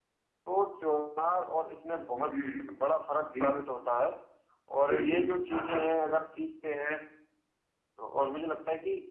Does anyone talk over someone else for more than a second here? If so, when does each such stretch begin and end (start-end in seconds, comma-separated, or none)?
none